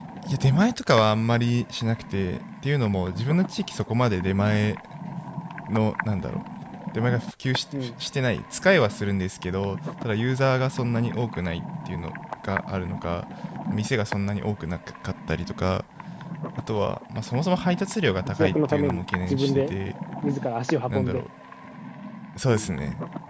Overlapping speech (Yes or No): Yes